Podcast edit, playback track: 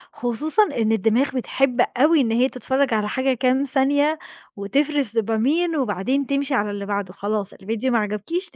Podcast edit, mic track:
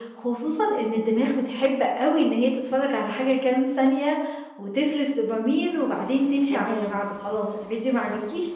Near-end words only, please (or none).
اهم.